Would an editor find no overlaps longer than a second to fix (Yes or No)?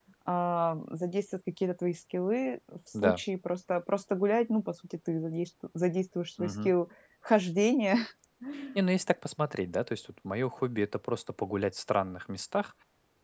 Yes